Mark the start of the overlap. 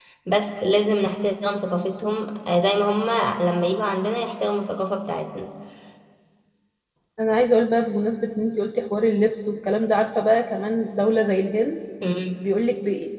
none

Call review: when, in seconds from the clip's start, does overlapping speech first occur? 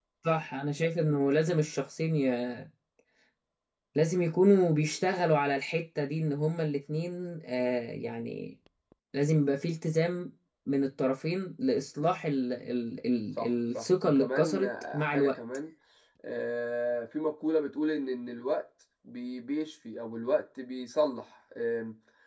13 s

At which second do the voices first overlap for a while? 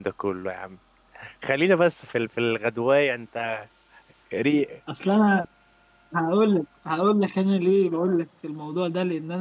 none

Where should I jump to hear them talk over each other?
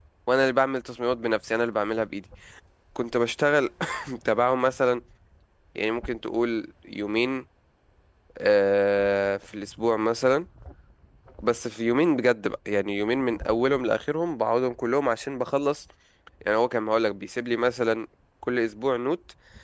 none

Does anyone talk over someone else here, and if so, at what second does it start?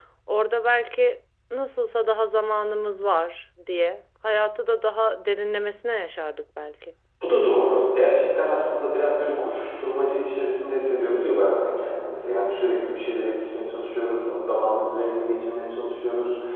none

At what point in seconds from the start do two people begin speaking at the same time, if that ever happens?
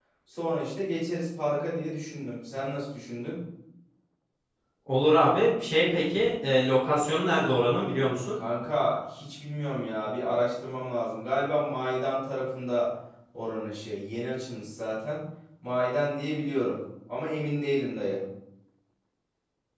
none

